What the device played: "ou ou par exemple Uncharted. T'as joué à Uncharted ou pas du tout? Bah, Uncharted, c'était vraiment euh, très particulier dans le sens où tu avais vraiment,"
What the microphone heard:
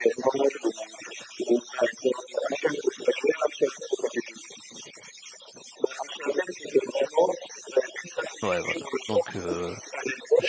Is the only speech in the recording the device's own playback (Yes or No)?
No